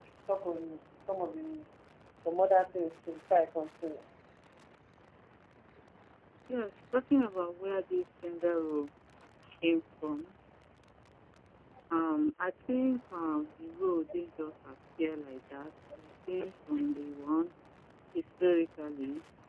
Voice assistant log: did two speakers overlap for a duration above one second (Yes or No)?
No